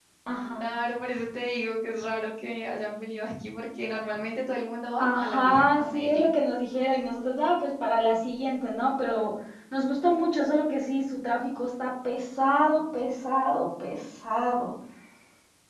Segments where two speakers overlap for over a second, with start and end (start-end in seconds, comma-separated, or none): 5.0-6.3